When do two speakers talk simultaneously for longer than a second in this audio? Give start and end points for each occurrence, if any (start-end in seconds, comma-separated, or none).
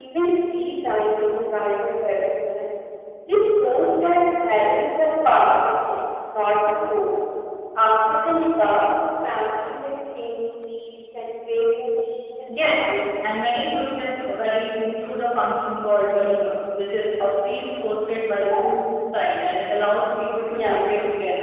none